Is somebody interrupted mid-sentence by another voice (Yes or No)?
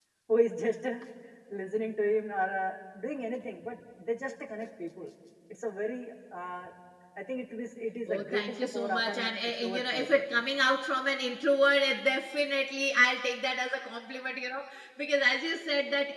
Yes